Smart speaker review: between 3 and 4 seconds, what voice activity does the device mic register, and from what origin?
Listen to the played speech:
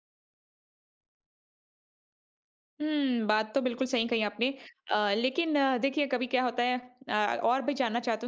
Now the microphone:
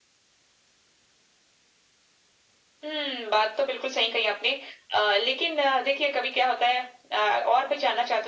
echo only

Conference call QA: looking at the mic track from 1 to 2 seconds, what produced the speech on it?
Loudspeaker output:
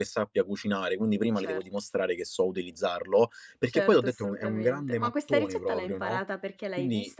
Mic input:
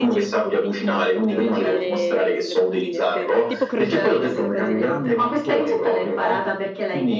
both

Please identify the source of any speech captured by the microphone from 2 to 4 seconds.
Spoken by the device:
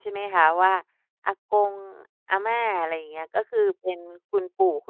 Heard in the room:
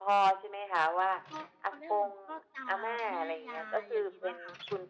both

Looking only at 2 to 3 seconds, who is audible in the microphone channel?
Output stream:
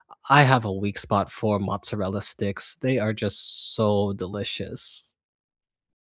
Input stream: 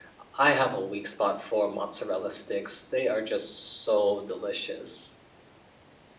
echo only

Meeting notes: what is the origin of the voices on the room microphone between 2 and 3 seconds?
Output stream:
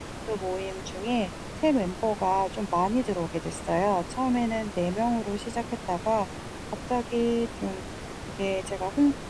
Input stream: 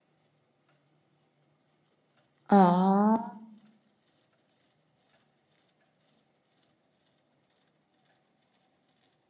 user only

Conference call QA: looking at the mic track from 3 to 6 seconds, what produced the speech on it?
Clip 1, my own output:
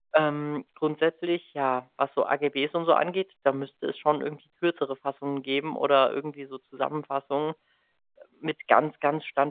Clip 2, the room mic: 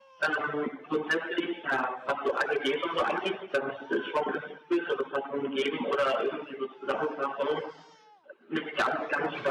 echo only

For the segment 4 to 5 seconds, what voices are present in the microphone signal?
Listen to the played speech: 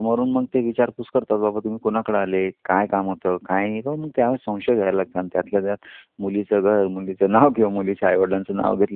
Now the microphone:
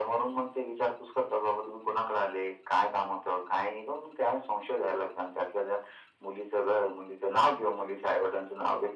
echo only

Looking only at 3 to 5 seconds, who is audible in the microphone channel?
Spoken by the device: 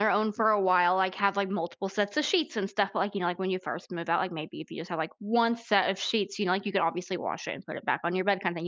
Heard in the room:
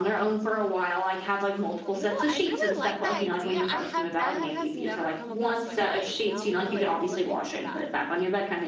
both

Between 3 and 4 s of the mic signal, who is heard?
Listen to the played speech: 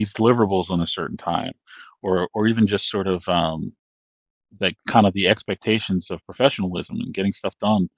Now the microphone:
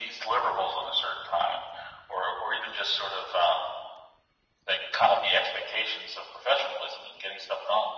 echo only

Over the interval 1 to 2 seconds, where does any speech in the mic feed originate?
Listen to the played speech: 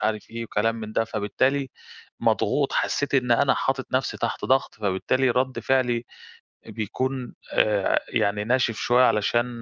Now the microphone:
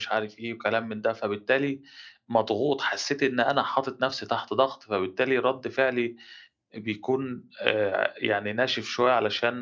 echo only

